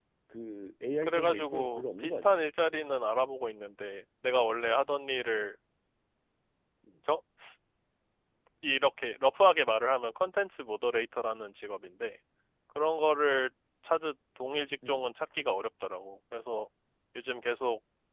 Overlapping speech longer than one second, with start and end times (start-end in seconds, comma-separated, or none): 1.0-2.3